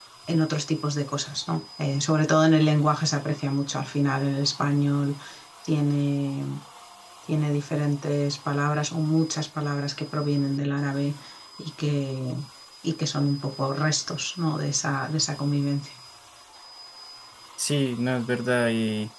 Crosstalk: none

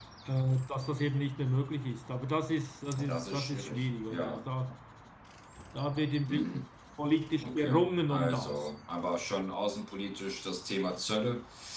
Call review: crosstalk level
present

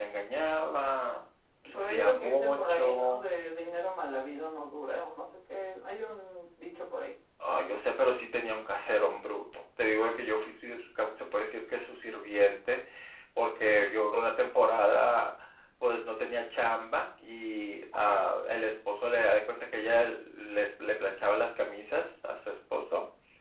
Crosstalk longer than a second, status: present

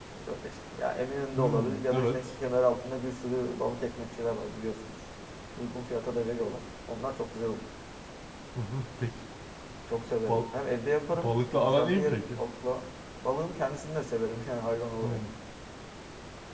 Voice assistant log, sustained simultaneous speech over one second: present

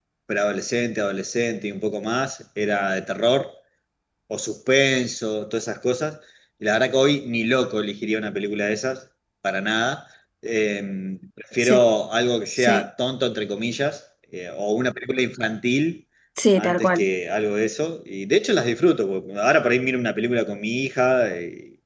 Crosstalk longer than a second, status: none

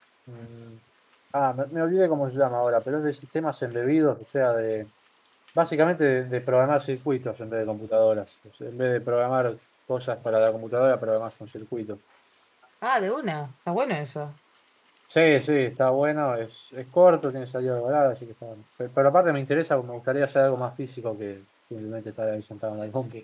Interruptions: none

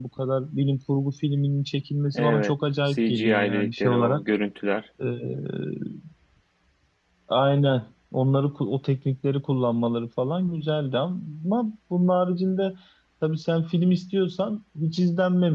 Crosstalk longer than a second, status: present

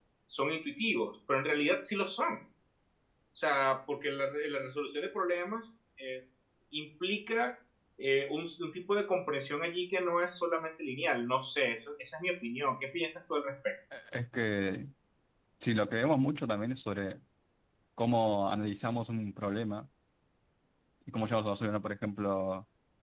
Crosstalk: none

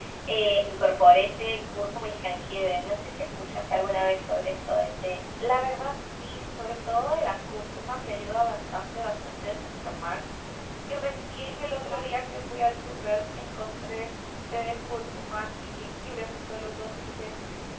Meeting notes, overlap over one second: none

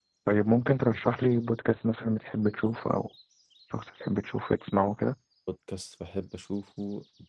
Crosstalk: none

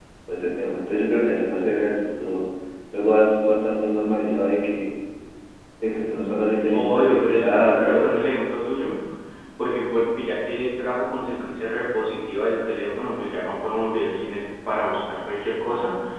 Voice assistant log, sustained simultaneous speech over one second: present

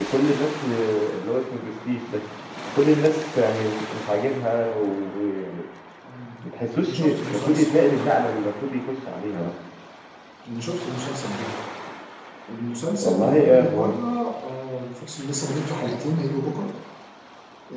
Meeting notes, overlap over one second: present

